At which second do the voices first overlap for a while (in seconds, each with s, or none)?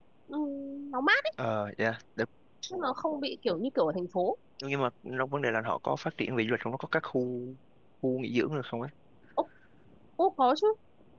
none